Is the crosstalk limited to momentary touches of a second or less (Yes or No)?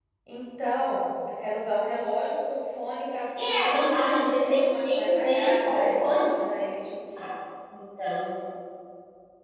No